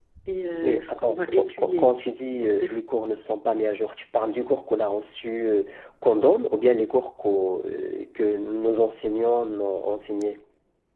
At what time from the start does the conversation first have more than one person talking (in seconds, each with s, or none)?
0.6 s